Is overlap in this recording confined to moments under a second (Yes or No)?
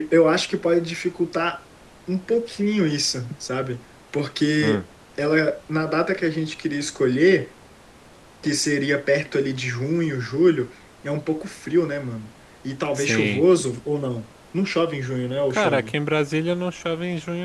Yes